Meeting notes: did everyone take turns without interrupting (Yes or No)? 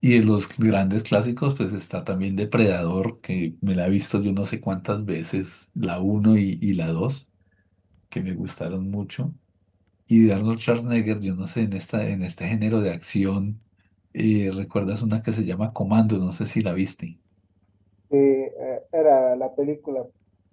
Yes